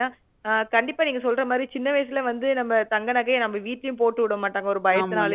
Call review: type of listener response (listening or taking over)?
listening